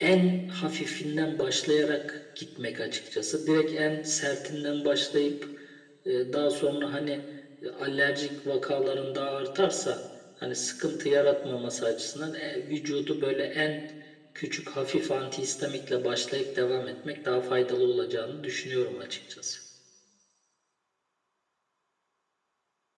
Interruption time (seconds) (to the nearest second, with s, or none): none